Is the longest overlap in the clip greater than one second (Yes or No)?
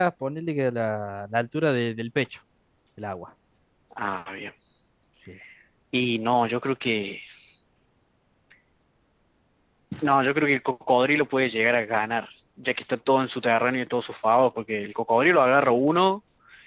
No